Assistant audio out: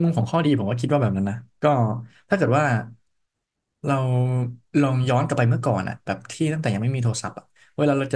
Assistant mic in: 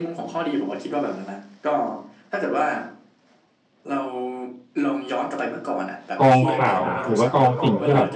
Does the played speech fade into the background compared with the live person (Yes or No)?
Yes